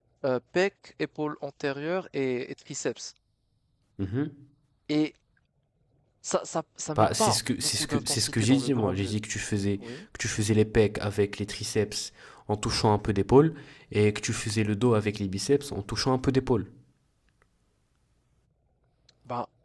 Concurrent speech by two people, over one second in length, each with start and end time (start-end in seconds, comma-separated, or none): 7.0-9.1